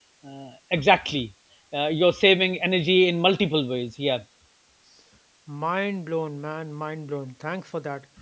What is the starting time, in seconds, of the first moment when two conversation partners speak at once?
none

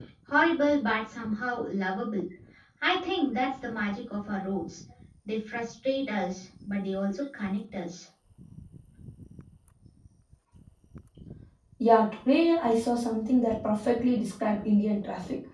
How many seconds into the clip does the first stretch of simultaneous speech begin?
none

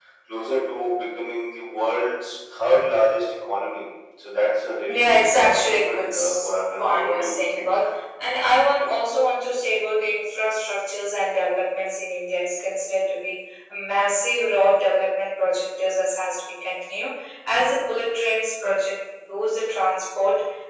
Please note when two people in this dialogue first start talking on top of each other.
4.9 s

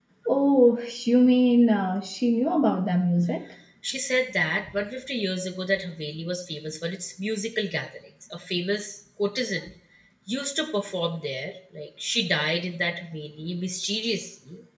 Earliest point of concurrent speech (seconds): none

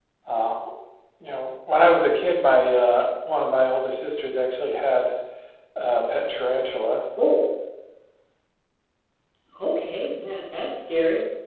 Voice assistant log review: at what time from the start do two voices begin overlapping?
none

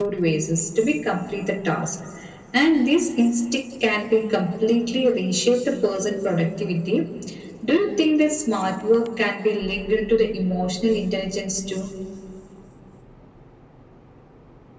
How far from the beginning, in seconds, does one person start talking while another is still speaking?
none

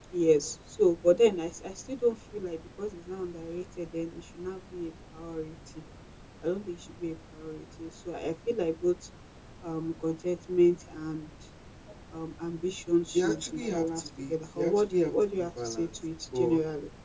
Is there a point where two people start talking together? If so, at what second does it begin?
13.1 s

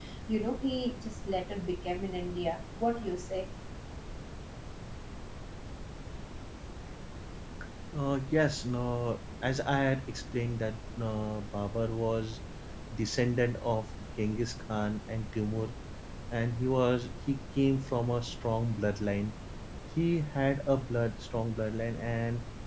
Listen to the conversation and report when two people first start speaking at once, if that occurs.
none

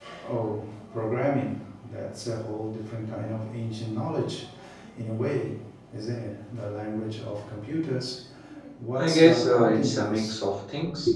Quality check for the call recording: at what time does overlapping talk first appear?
8.9 s

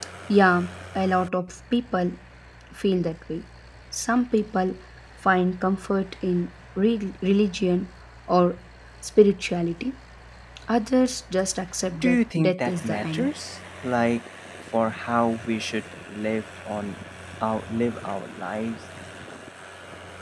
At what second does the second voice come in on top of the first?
11.9 s

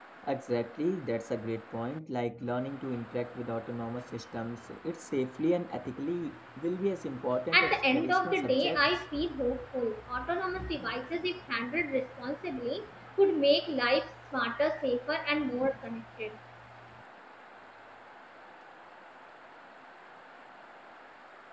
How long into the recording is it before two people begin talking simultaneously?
7.5 s

